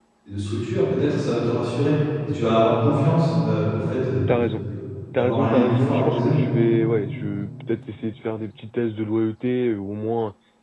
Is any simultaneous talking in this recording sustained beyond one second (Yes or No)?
Yes